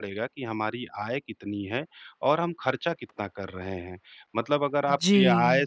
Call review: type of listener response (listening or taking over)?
listening